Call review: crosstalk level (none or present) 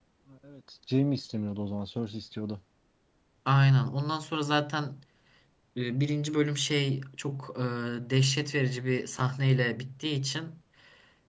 none